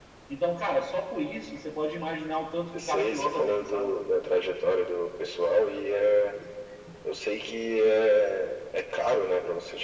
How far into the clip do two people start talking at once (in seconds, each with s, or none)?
2.7 s